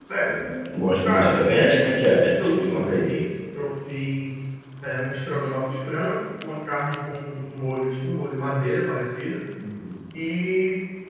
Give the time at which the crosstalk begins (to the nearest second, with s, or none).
1 s